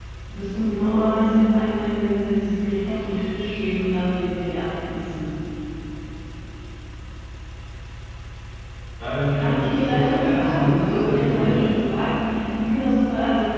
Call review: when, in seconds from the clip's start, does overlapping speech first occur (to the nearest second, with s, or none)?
9 s